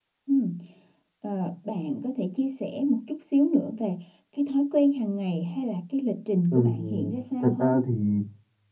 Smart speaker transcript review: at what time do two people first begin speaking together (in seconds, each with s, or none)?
6.5 s